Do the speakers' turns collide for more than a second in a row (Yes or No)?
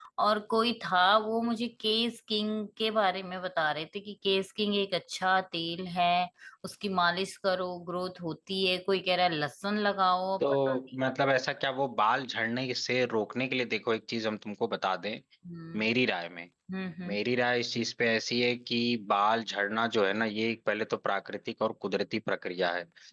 No